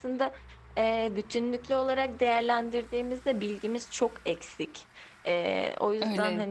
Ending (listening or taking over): taking over